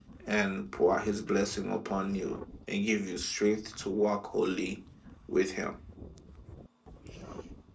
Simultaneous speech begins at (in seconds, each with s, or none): none